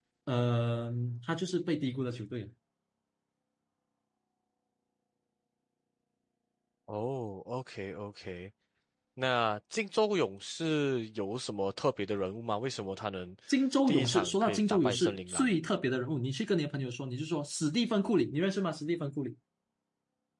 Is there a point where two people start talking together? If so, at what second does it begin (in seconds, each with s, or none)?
13.9 s